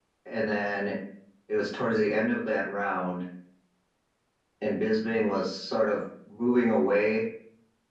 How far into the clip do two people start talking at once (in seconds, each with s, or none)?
none